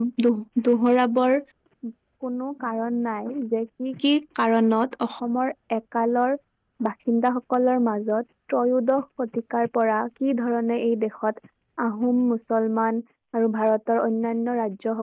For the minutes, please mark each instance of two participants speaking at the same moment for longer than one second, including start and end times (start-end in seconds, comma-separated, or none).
none